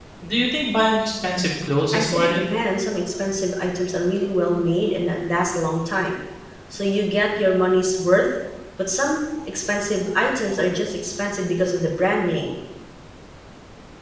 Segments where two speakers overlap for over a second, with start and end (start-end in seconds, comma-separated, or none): none